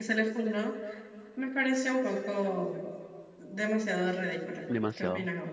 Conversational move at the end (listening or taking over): taking over